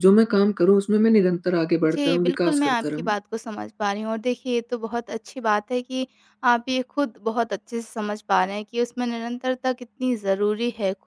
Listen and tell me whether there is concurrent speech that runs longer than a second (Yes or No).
Yes